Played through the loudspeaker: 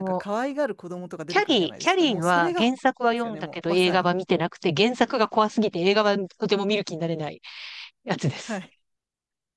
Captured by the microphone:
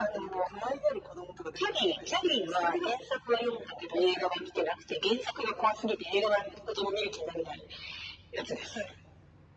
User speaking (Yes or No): No